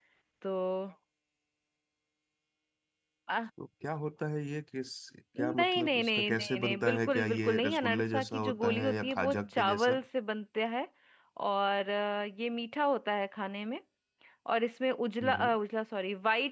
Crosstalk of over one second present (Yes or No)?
Yes